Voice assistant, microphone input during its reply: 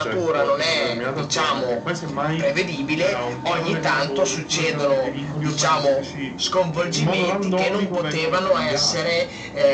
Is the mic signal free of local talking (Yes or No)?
Yes